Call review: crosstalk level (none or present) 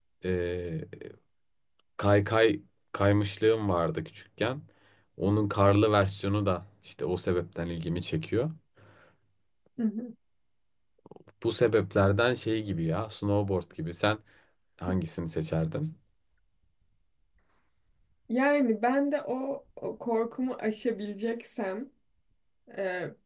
none